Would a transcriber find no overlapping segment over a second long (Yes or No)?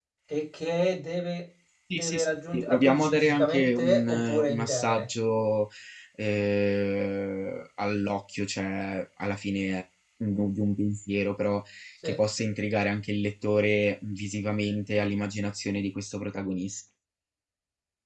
No